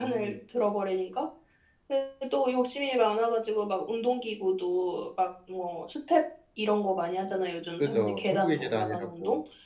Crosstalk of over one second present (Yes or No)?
Yes